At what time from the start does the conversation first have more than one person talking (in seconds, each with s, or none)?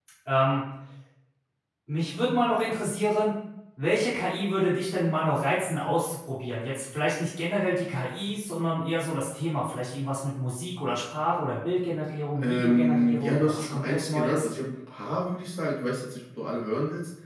12.4 s